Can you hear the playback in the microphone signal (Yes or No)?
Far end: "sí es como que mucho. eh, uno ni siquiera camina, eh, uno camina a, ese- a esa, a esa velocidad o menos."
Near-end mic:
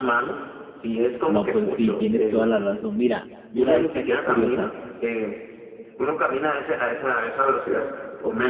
Yes